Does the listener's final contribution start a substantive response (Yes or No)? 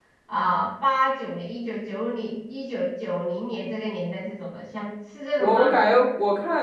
Yes